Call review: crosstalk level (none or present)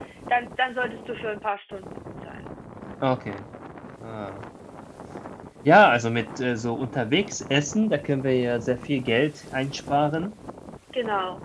none